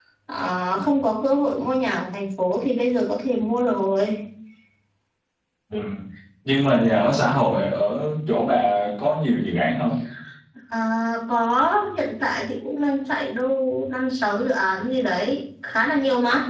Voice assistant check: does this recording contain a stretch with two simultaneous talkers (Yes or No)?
No